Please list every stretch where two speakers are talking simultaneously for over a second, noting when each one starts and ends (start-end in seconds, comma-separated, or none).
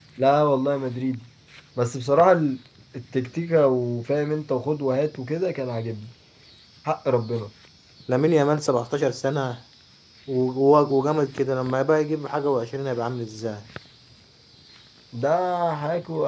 none